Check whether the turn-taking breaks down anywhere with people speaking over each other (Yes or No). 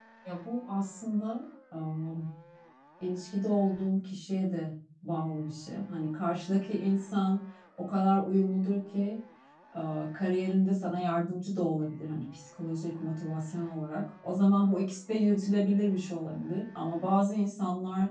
No